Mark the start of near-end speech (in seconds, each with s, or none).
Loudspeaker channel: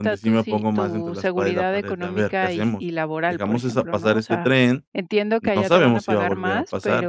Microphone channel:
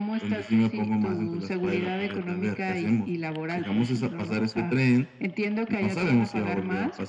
none